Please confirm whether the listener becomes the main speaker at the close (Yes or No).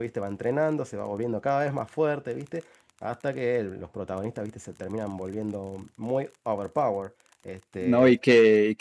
Yes